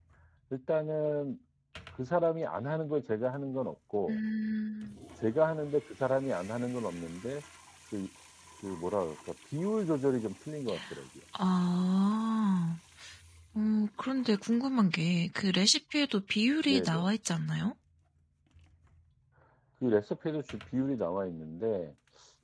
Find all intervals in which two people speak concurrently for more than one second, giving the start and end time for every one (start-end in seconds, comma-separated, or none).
none